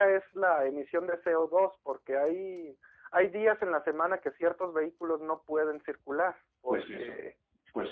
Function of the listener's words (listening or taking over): taking over